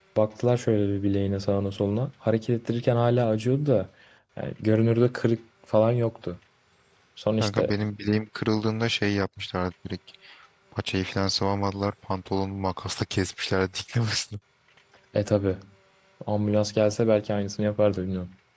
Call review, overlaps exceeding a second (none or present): none